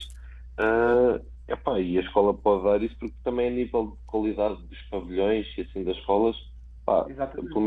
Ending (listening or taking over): listening